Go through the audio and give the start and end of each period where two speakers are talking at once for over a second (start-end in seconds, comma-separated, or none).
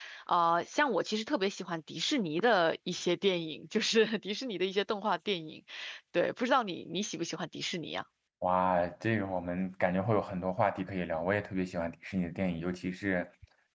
none